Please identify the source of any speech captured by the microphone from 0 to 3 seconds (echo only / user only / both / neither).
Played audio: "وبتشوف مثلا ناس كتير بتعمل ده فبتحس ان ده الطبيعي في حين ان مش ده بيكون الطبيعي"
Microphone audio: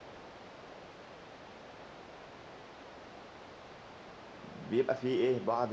neither